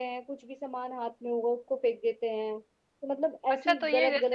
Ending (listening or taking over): taking over